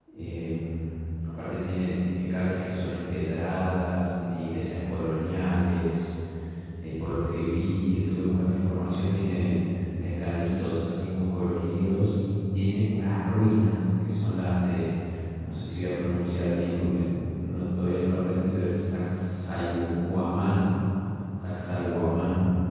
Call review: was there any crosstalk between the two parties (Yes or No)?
No